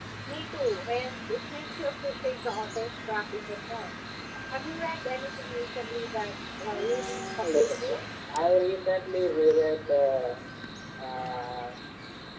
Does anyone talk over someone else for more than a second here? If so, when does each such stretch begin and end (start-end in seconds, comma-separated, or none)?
6.7-8.0